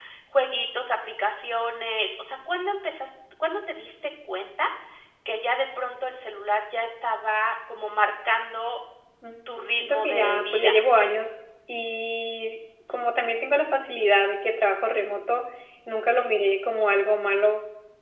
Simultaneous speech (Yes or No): Yes